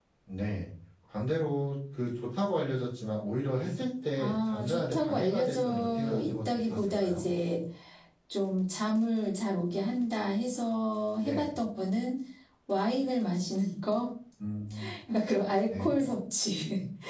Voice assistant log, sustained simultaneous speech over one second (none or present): present